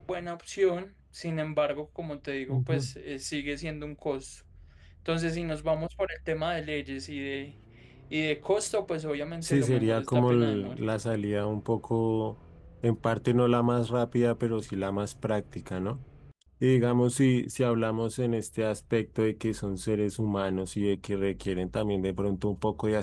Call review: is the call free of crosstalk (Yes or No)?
No